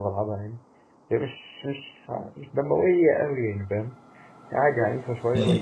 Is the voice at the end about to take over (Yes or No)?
Yes